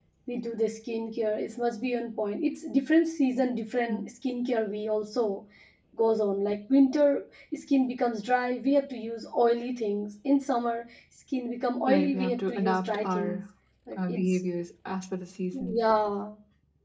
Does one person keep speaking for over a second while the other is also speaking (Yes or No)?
Yes